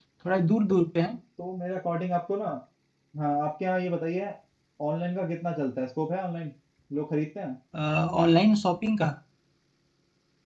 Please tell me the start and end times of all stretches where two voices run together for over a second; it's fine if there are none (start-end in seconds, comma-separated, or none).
none